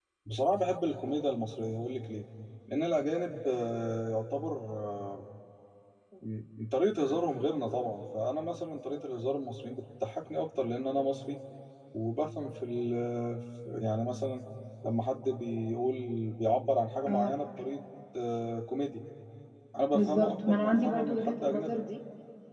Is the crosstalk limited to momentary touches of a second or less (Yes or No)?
No